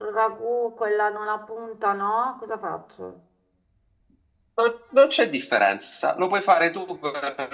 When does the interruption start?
none

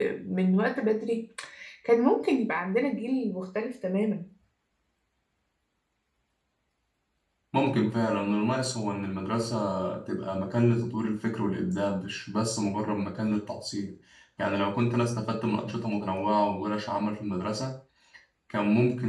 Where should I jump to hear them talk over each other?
none

